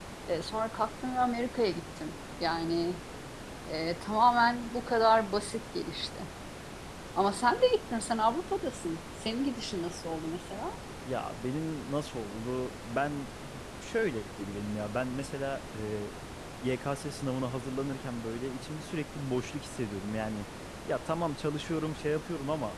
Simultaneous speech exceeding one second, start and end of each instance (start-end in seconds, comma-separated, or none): none